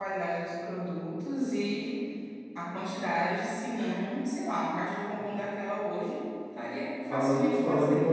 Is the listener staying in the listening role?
No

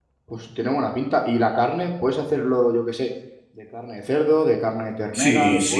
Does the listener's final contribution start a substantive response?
Yes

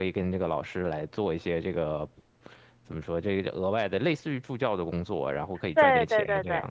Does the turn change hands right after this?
Yes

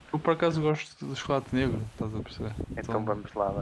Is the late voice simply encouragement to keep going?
No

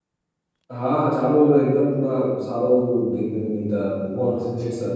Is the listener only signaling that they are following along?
No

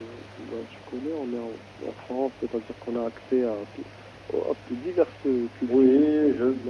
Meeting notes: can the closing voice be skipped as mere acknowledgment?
No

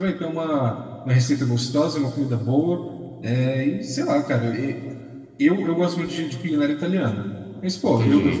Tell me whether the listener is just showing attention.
Yes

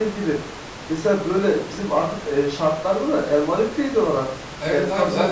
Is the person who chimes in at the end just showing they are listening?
No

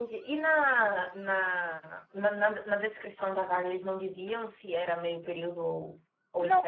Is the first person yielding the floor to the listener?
Yes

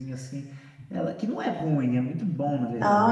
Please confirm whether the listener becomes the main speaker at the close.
Yes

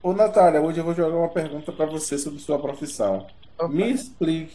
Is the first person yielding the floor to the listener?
No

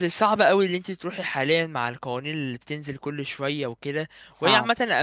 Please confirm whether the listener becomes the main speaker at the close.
No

